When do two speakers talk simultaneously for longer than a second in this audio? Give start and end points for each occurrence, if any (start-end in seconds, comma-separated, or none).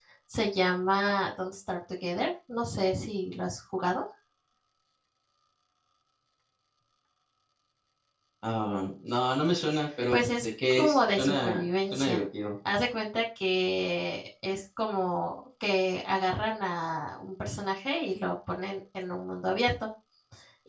10.1-12.2